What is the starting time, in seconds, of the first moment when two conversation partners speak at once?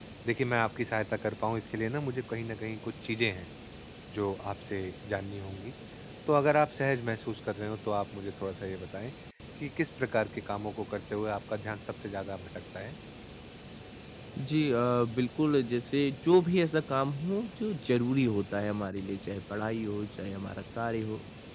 none

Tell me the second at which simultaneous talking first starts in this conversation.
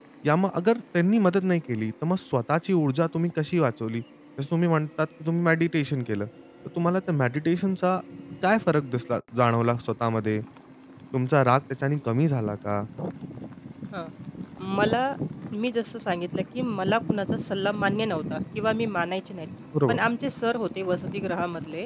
none

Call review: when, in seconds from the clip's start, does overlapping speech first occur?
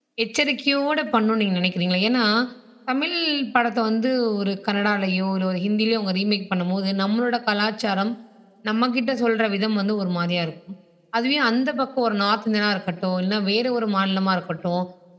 none

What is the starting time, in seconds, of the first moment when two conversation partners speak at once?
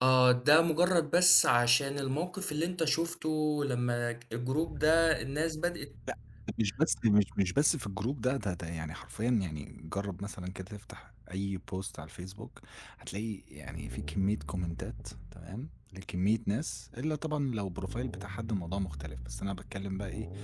none

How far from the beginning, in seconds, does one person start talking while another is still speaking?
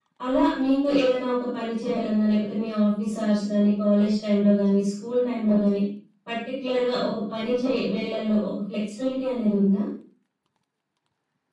none

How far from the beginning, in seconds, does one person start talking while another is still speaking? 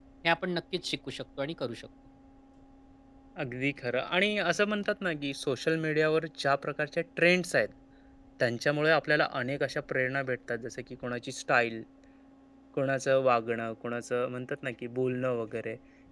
none

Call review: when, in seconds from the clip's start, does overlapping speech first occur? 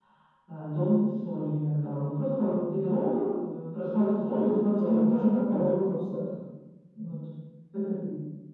4.3 s

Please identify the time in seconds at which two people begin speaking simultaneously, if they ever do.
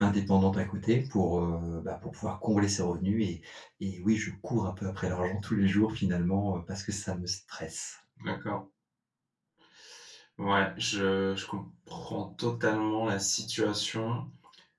none

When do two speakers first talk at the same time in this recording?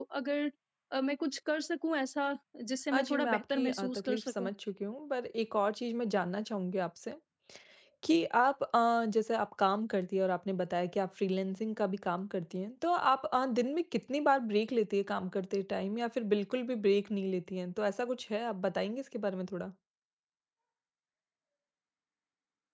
2.9 s

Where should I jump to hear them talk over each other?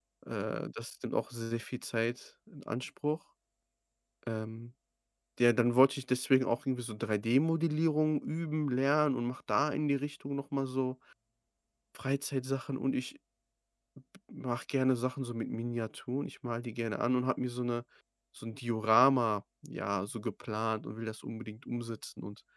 none

